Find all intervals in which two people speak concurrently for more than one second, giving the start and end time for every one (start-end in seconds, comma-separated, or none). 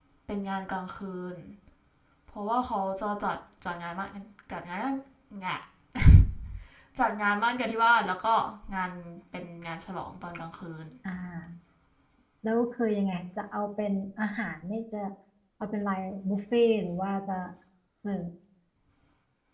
none